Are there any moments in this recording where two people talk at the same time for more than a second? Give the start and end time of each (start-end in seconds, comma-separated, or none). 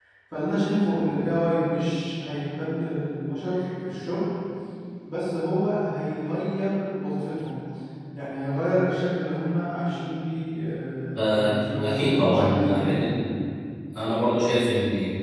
11.2-13.2